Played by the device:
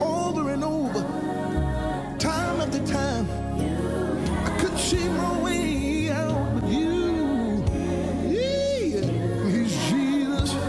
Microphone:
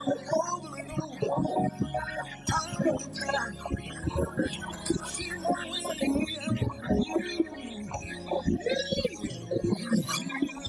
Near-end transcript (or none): none